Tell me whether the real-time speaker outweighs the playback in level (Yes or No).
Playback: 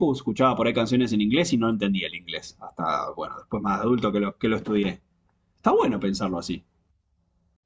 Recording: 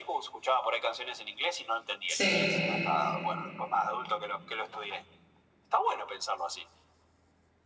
Yes